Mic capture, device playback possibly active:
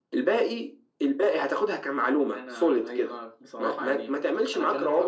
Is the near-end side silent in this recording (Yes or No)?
Yes